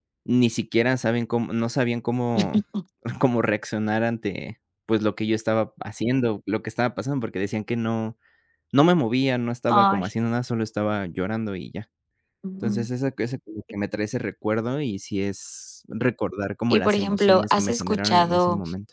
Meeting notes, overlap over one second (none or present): present